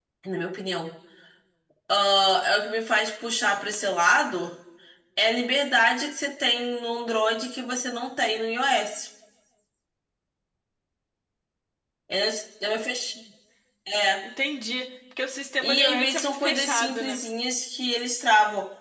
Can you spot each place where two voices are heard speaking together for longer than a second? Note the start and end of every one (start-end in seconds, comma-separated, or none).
15.6-17.2